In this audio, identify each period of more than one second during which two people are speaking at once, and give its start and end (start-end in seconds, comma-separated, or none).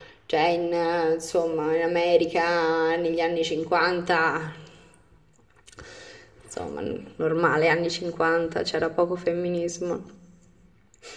none